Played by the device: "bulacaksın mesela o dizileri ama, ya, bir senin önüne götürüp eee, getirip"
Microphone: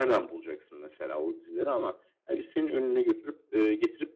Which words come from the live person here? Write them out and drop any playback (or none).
none